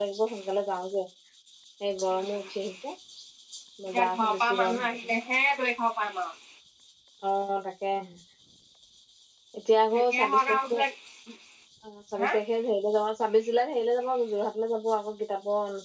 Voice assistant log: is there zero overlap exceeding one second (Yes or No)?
No